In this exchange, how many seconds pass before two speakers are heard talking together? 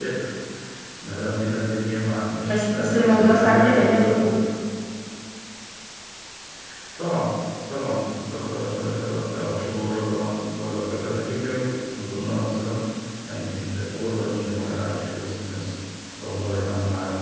2 s

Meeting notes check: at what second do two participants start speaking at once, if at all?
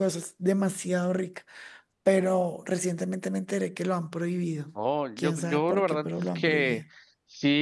5 s

